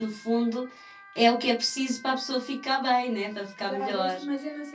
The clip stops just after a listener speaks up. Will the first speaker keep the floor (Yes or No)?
No